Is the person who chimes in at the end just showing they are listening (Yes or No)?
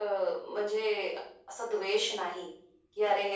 Yes